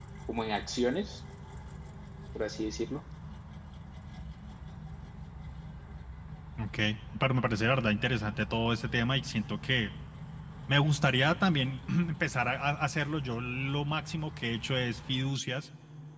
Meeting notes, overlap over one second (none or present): none